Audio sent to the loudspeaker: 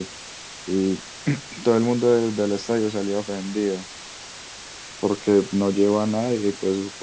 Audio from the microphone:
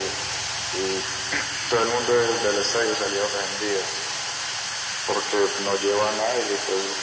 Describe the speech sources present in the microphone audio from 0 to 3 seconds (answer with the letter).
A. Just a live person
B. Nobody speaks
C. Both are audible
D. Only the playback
D